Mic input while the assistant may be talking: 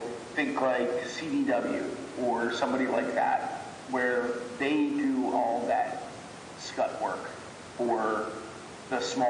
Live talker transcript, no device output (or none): none